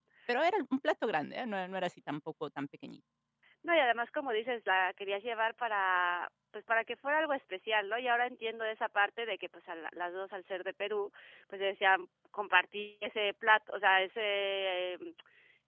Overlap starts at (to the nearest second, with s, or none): none